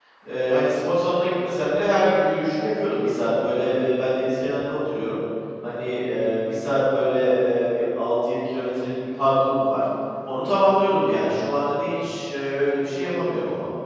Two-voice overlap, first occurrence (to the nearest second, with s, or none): none